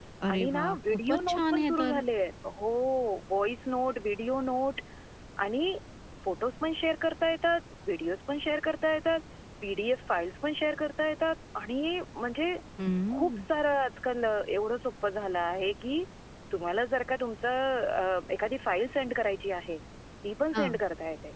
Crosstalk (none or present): present